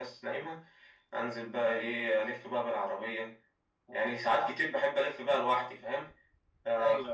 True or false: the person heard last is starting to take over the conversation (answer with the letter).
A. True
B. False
B